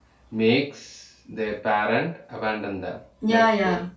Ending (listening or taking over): taking over